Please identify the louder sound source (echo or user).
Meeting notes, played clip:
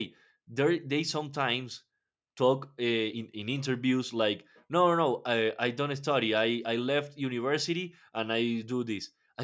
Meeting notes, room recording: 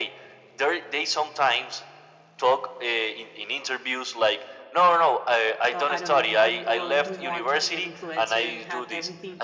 echo